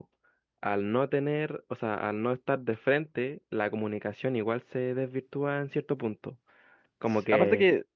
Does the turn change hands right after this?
Yes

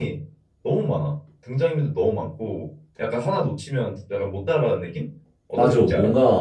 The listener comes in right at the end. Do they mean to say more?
Yes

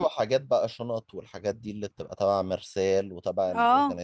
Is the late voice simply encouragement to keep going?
Yes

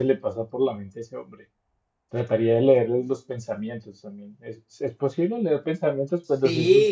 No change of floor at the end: No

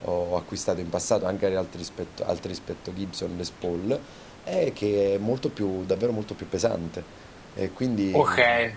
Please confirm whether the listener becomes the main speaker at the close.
Yes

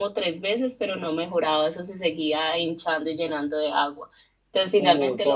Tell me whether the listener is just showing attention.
Yes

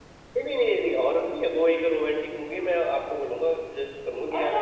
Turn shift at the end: Yes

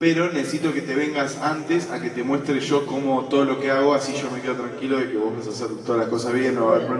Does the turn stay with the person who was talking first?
No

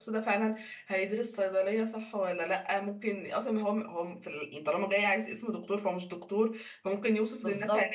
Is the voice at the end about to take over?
No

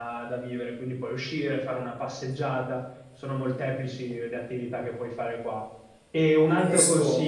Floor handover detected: No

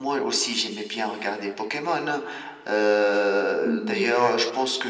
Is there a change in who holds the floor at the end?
No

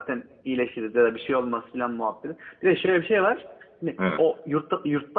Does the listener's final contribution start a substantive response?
No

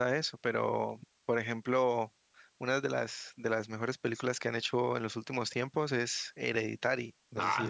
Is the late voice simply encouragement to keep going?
No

